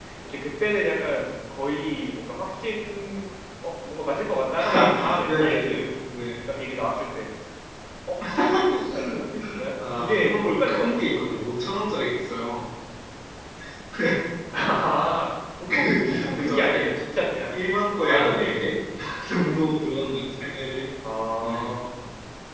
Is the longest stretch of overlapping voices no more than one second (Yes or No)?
No